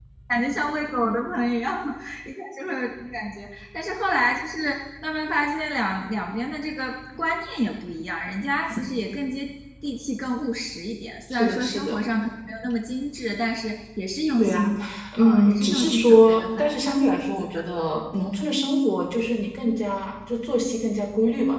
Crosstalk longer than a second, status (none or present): present